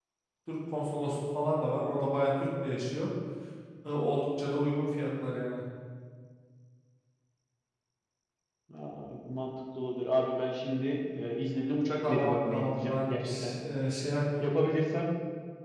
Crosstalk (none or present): present